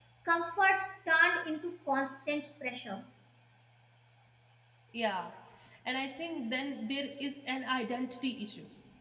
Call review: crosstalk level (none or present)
none